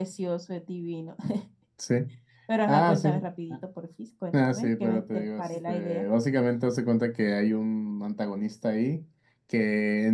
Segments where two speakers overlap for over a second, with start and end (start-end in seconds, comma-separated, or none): 4.4-6.0